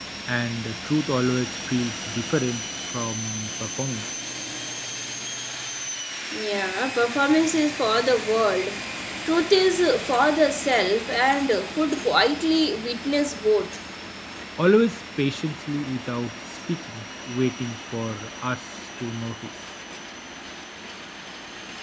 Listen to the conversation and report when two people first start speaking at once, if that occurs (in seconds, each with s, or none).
none